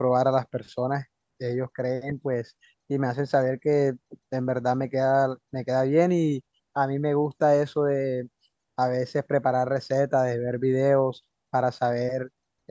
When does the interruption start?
none

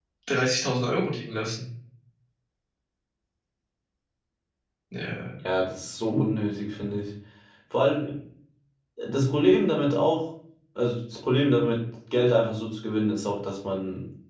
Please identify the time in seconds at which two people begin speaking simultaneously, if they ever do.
none

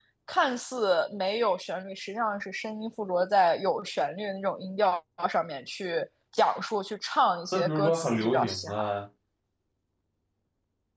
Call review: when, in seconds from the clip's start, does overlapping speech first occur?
7.5 s

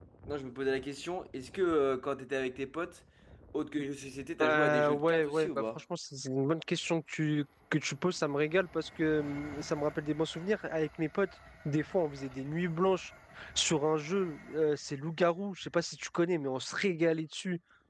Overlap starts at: 4.4 s

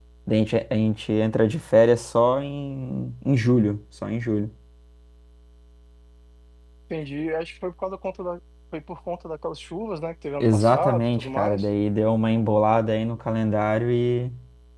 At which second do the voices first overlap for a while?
10.4 s

